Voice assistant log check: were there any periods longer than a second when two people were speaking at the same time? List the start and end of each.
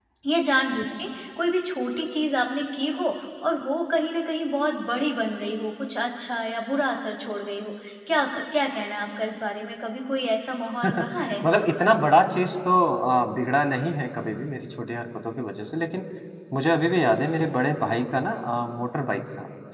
none

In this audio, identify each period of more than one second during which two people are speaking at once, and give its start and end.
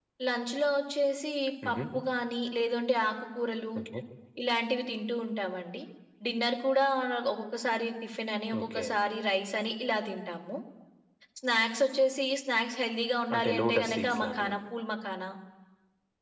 13.3-14.5

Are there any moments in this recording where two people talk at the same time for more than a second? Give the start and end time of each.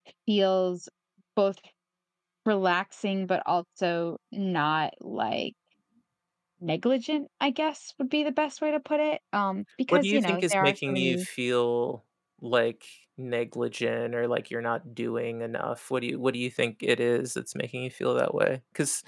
9.9-11.2

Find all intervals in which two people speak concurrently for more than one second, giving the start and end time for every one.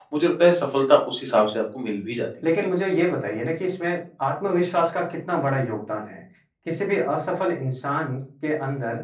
none

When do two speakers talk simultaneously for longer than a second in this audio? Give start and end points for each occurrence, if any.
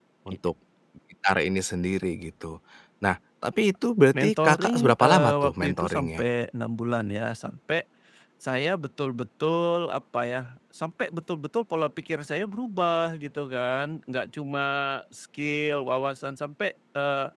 4.2-6.2

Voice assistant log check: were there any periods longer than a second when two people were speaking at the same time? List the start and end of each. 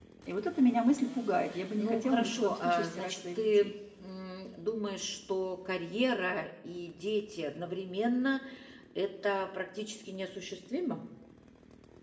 1.8-3.7

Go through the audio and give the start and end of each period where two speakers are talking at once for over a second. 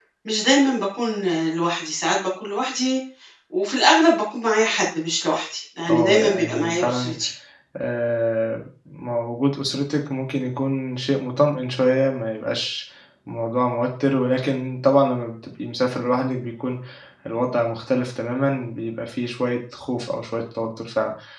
5.9-7.1

